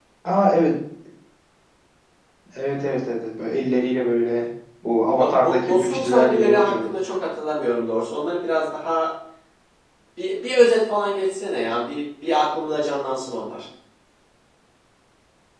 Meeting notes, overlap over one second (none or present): present